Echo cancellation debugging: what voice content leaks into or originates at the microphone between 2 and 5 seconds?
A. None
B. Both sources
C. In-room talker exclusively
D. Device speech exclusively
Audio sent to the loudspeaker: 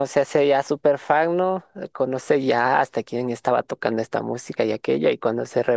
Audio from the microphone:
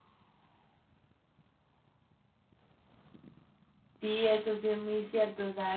C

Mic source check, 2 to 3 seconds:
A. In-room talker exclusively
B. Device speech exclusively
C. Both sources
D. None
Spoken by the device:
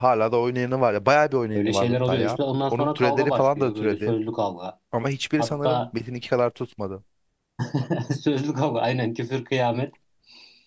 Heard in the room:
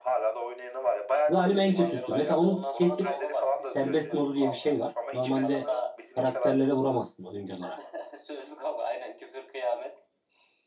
C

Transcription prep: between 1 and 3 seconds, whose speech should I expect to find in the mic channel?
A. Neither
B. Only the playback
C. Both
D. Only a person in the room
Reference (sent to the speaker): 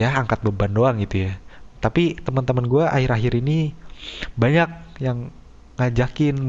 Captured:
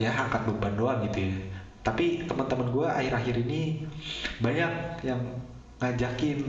B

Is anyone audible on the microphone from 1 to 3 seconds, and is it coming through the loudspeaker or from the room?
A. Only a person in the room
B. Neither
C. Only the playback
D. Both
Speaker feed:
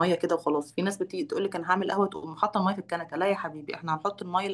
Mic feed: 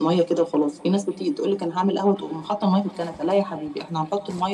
C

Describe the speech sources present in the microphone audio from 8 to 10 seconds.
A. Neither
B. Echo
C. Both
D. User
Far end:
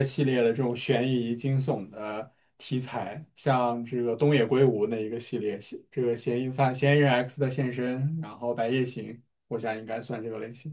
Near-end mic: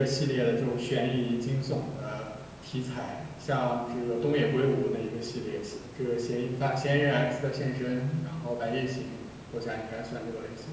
B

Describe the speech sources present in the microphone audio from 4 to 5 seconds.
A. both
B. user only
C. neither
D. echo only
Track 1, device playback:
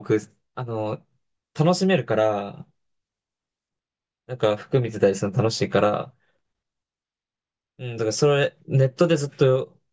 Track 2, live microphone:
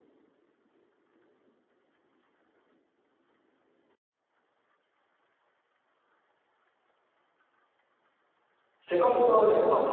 C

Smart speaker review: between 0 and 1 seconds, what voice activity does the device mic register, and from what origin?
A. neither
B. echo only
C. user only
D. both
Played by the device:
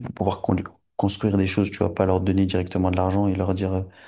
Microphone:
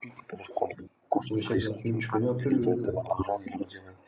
B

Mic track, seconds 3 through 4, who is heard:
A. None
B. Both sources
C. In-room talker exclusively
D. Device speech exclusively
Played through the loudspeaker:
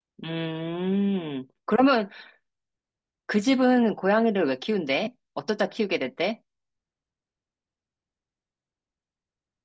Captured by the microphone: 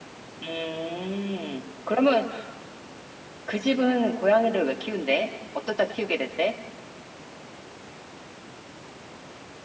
D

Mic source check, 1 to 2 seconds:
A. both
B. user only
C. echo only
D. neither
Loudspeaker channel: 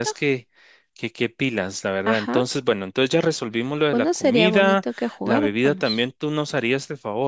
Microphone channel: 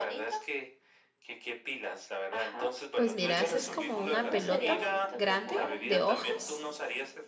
C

